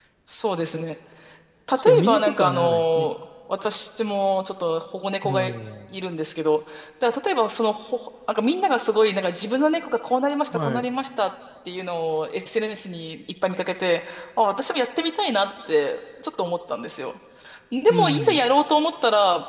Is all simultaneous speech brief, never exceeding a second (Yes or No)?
No